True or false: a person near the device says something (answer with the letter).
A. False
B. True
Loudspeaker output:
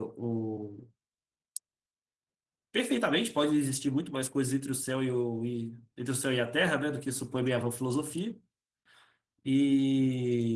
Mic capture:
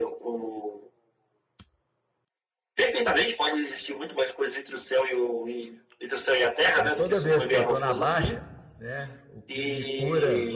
B